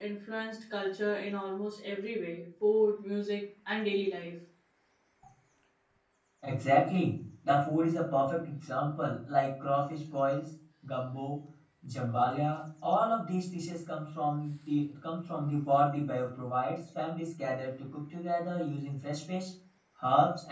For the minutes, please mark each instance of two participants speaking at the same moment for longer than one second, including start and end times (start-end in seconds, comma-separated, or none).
none